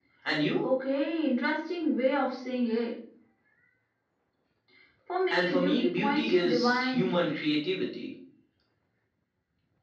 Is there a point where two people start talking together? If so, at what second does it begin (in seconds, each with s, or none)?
5.3 s